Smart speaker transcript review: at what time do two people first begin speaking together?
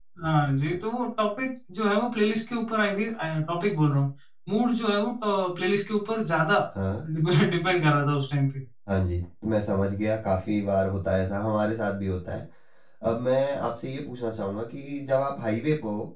none

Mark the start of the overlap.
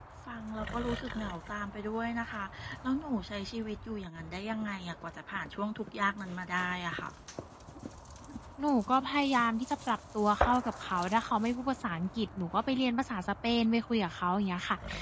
none

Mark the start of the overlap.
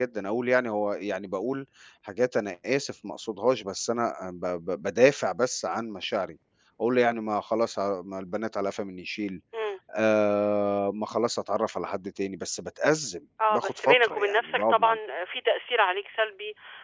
13 s

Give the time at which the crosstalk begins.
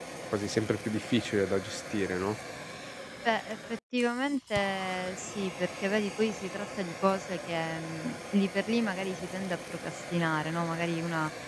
none

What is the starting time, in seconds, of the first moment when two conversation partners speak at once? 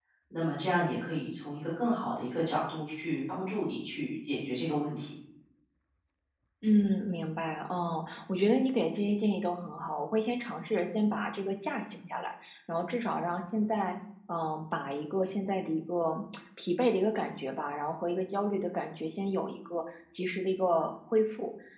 none

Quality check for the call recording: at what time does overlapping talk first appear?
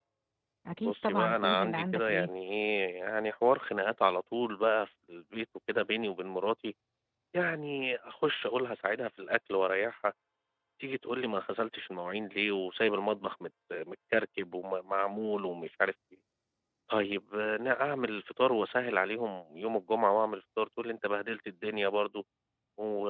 1 s

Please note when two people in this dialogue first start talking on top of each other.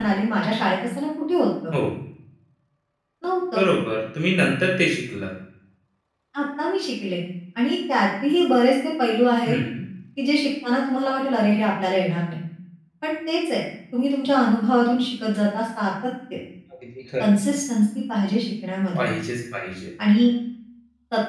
none

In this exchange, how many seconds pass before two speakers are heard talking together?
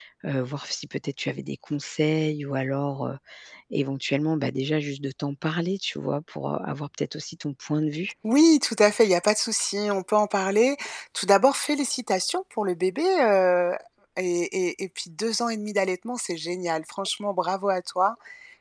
none

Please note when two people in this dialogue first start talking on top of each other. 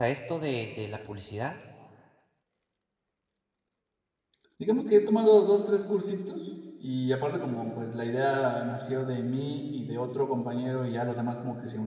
none

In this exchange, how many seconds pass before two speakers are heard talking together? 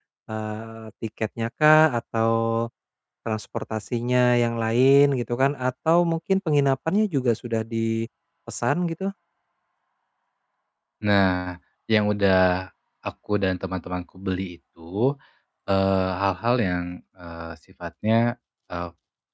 none

